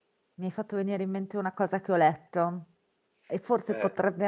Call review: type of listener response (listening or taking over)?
listening